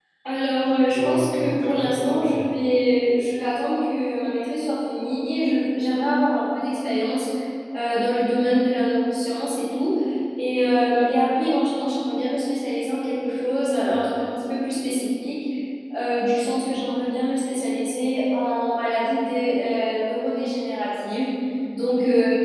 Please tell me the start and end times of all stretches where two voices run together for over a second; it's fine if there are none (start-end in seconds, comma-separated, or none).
0.9-2.5